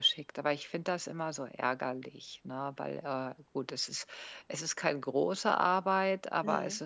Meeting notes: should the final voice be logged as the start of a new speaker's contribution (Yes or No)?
No